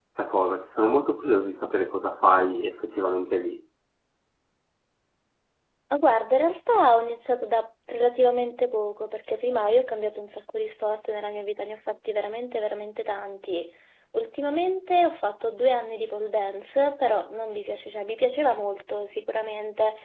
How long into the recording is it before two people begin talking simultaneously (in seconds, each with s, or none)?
none